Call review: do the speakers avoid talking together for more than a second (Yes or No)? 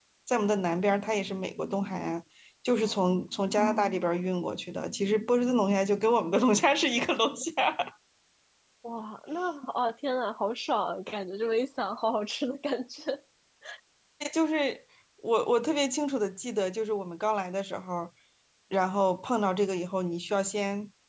Yes